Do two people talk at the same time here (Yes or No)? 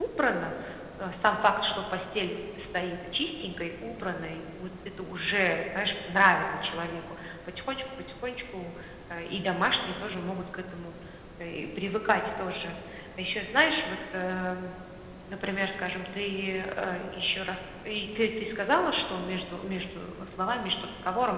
No